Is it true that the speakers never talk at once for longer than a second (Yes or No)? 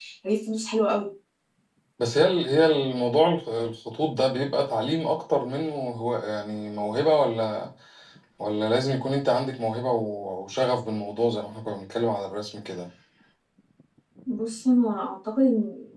Yes